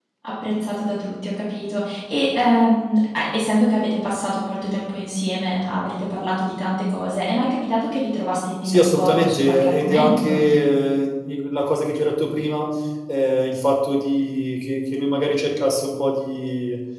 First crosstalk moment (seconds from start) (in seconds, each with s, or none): 8.6 s